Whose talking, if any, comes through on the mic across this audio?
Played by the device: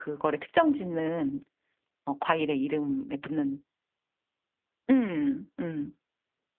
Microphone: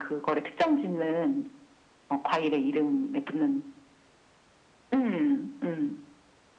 echo only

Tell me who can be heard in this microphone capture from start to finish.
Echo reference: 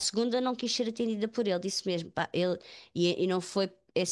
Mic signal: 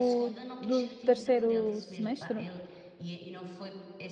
both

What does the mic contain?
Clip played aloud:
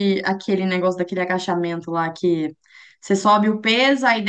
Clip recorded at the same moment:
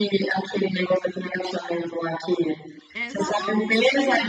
both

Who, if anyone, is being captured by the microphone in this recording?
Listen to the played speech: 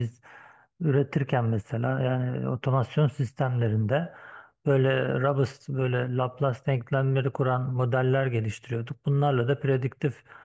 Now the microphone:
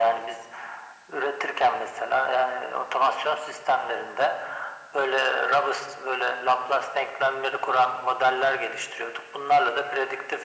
echo only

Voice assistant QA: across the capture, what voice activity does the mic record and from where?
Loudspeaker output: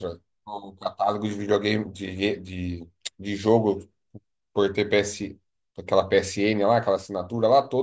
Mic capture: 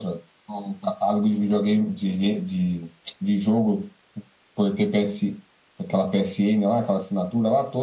echo only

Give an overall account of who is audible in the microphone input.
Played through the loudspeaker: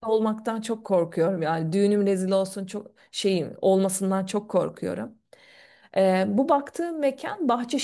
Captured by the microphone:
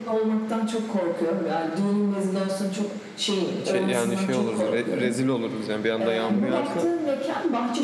both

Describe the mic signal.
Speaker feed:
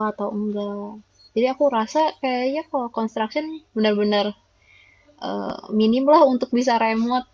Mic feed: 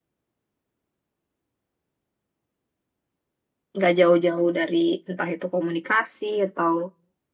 user only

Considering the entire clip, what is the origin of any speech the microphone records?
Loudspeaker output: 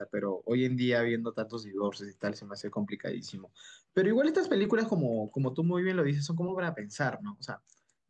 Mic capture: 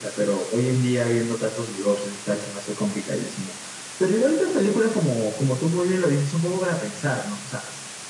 echo only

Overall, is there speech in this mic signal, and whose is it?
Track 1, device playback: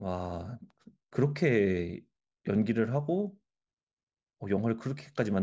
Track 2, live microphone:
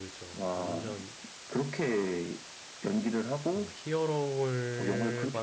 both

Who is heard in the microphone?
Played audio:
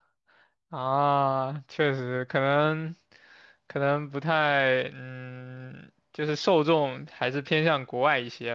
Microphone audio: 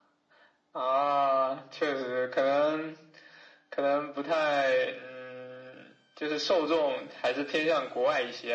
echo only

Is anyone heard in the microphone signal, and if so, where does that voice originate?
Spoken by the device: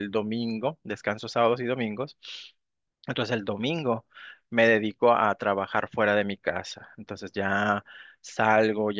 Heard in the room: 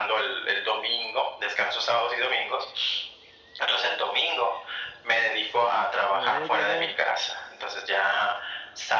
both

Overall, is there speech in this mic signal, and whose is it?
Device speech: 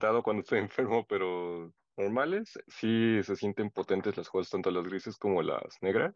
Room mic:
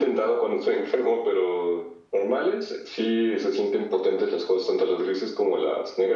echo only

